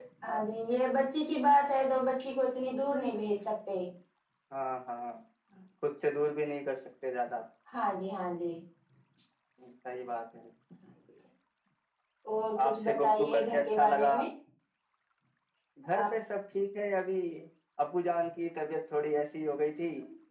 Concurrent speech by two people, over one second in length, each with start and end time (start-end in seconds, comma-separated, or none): 12.6-14.2